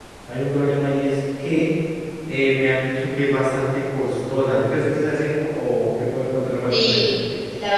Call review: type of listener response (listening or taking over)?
taking over